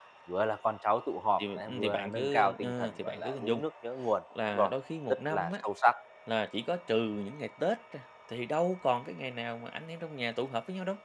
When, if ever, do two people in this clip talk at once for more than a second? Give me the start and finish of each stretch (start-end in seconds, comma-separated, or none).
1.4-3.6